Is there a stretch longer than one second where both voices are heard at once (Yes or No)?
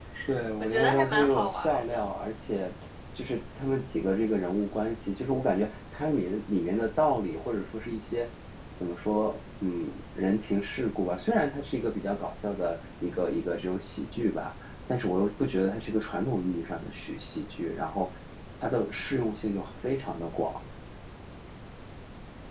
Yes